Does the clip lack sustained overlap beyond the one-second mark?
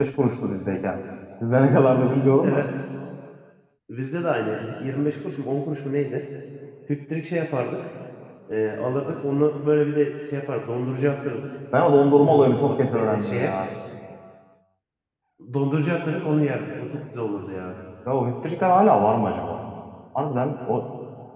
No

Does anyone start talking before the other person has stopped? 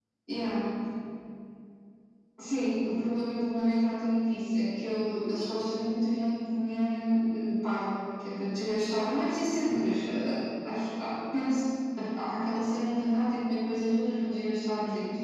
No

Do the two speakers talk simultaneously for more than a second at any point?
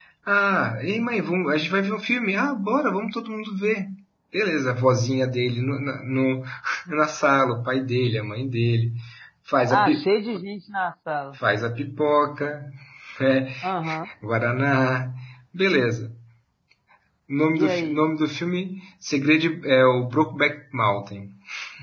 No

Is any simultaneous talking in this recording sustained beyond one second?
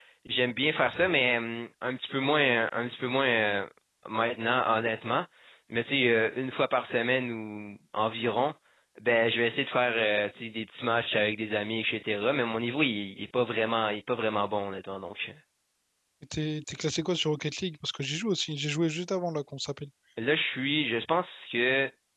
No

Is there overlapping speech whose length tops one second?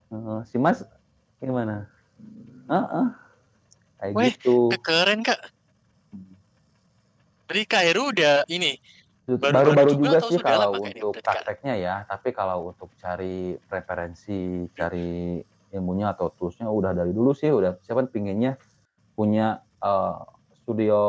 Yes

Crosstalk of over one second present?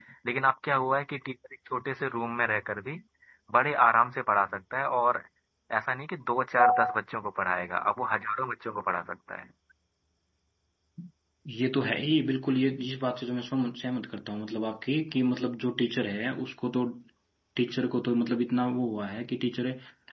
No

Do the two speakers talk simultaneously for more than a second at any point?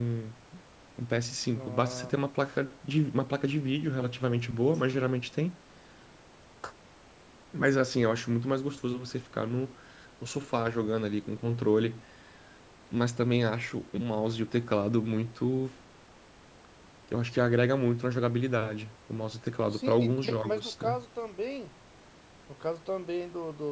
Yes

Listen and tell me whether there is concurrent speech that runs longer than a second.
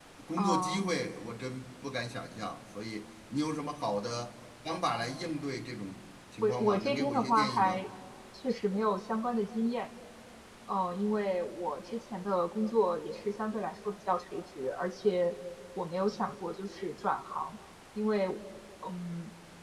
Yes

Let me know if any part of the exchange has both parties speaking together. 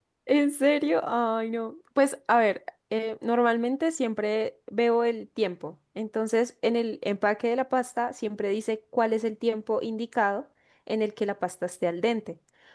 No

